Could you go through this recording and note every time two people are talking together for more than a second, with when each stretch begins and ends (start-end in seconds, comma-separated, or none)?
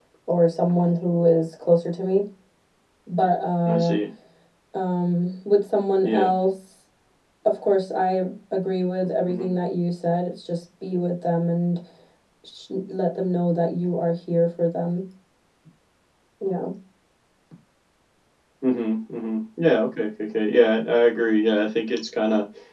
none